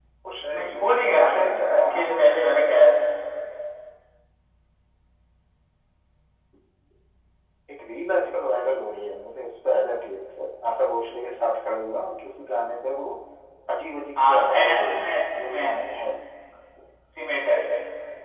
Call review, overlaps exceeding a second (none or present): present